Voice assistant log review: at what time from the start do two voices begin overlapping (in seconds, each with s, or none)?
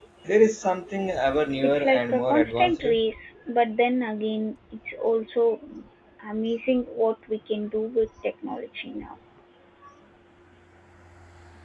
1.6 s